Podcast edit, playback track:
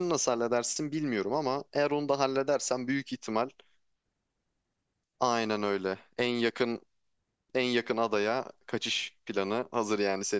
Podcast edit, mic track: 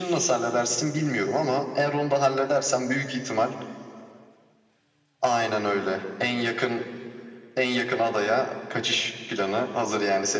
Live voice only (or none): none